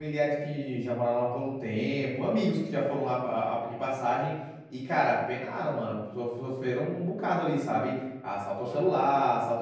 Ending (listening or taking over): listening